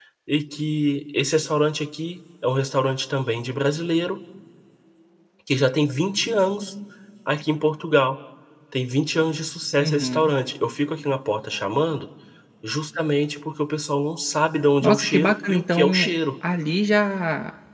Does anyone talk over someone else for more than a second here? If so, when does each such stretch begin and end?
14.8-16.1

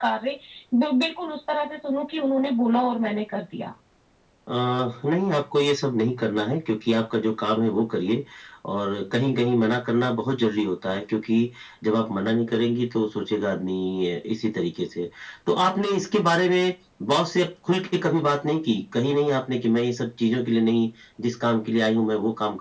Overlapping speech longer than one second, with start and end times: none

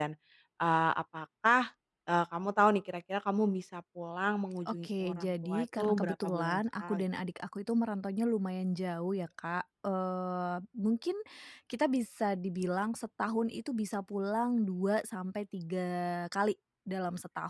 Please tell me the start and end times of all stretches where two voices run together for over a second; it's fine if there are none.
4.7-7.0

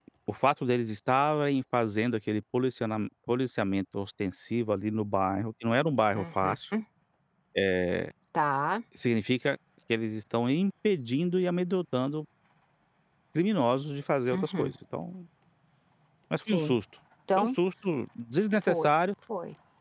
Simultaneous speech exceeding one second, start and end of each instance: none

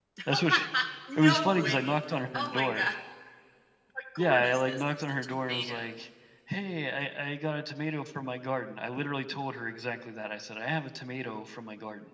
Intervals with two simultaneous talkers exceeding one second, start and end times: 1.2-2.9, 4.2-5.9

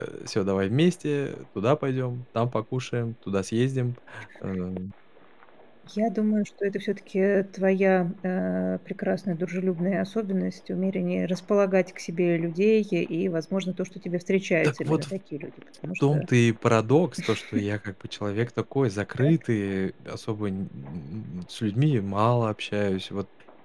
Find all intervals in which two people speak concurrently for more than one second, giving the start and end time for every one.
none

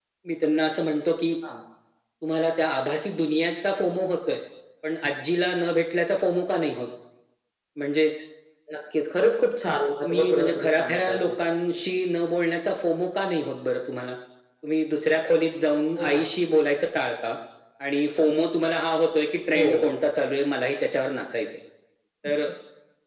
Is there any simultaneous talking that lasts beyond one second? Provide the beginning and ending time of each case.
10.0-11.3

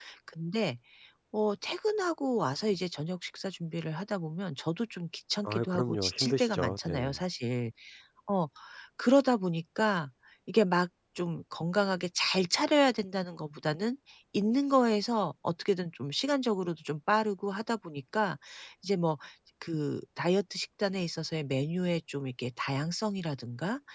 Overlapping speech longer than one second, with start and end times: 5.5-7.2

